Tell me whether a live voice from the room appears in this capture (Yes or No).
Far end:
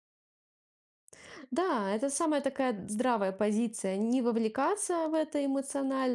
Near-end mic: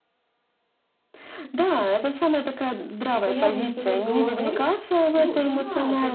Yes